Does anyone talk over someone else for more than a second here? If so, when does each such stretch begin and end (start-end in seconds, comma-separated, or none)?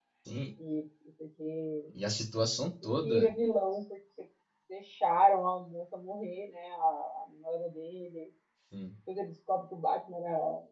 none